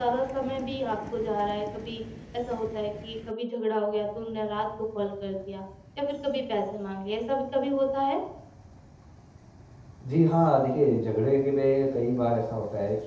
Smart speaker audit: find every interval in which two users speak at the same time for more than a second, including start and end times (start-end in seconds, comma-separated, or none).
none